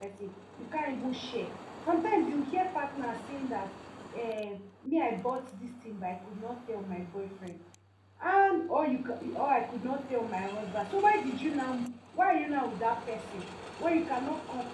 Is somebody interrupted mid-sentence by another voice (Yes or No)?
No